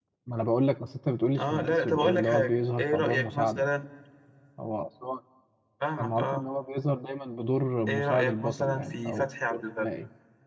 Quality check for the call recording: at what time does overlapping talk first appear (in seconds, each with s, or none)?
1.4 s